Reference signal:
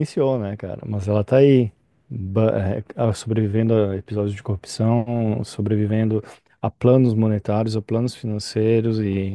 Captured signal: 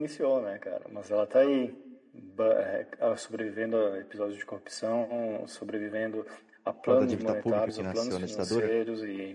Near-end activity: present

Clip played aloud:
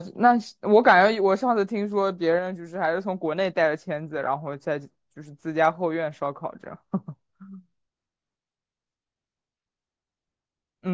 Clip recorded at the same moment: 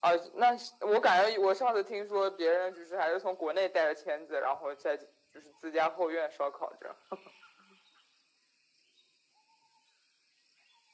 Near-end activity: none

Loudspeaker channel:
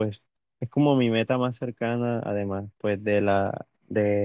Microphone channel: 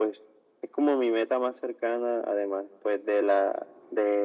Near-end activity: none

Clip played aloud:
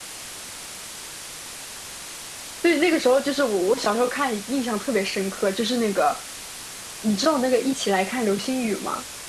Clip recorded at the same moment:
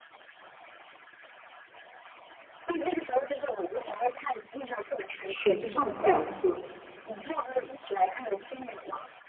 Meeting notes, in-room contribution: present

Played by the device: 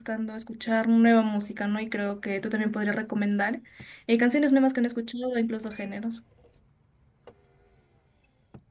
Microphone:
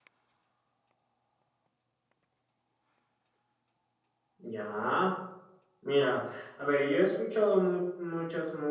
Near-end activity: present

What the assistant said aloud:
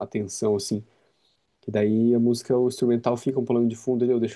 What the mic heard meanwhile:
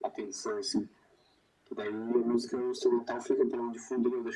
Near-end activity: none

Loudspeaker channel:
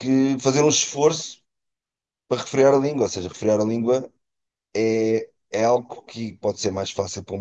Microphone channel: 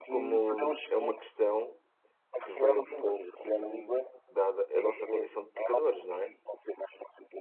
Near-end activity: present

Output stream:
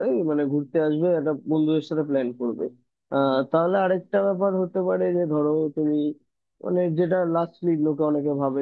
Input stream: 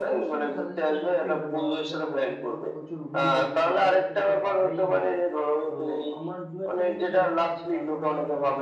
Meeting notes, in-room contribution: present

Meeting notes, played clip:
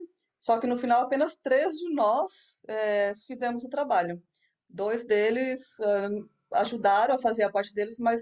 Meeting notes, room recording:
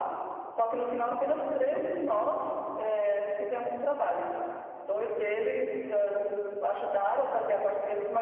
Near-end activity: none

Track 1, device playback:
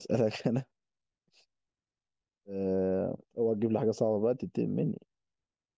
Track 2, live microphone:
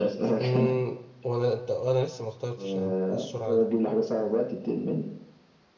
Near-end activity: present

